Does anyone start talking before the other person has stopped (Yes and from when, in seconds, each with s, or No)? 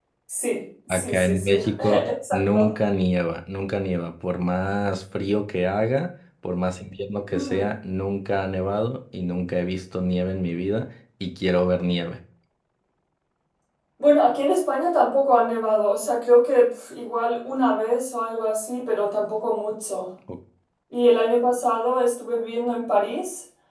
Yes, from 0.9 s